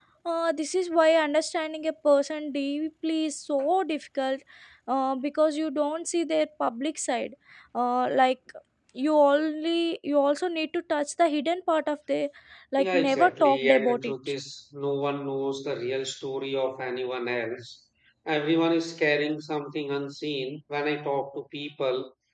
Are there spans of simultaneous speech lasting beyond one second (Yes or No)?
Yes